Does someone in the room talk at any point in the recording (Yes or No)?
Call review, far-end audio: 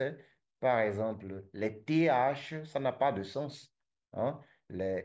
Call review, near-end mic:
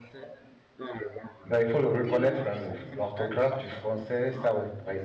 Yes